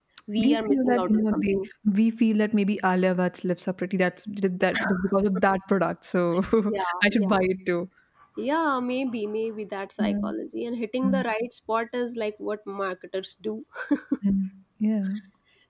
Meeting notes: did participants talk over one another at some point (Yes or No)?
Yes